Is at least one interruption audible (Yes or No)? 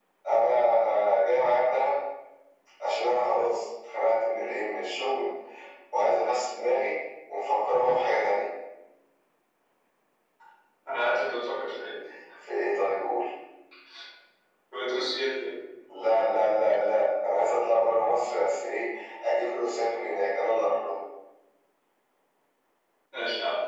No